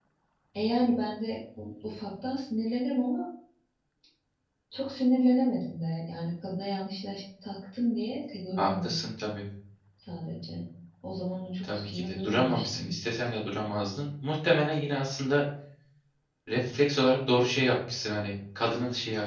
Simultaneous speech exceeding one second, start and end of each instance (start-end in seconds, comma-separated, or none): 11.7-12.9